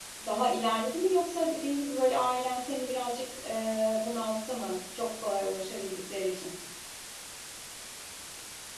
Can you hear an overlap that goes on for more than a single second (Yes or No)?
No